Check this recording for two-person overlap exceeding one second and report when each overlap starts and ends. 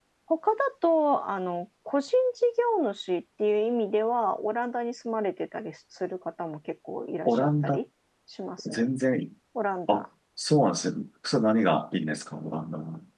none

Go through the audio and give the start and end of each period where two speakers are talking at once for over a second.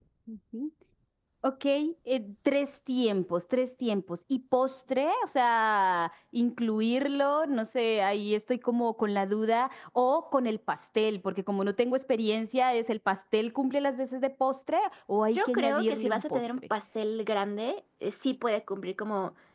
15.3-16.6

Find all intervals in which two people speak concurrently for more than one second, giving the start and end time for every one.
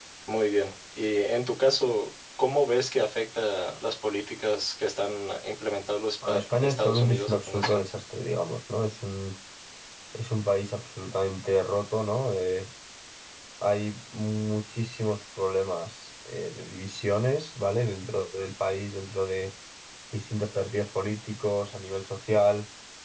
6.3-7.8

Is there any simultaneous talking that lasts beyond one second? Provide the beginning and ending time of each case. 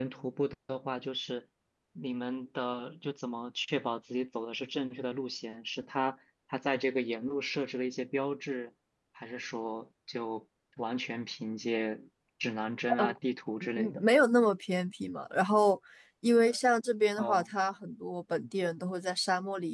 none

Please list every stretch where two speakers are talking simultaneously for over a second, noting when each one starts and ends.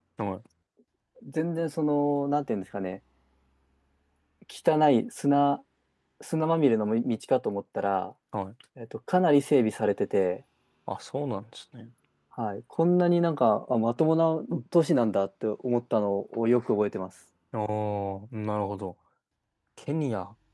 none

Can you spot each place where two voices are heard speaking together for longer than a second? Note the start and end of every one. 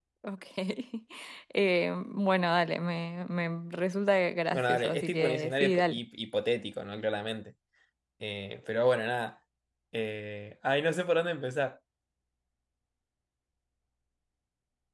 4.5-6.0

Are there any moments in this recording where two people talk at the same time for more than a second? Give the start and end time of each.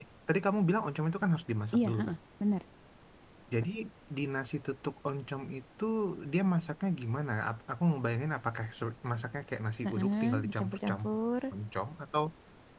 9.9-11.2

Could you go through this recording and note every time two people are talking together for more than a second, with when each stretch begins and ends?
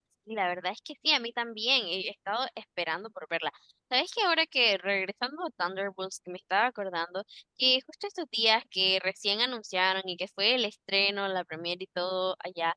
none

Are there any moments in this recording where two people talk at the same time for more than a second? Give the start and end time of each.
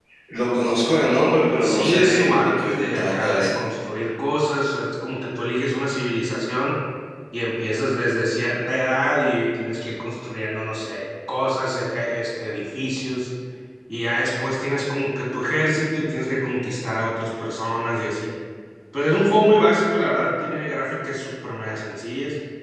1.6-3.6

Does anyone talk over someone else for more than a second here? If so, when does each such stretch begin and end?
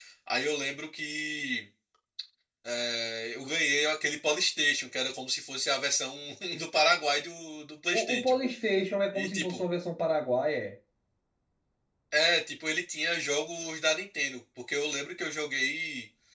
none

